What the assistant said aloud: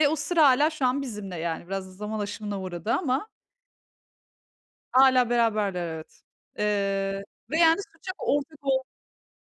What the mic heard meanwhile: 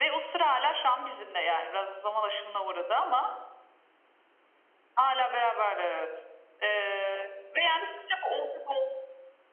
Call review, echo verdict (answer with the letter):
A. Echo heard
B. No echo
A